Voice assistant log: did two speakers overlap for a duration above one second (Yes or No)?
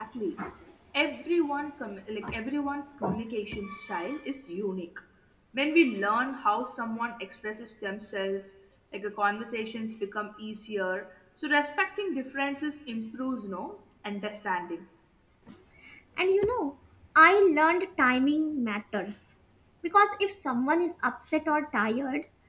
No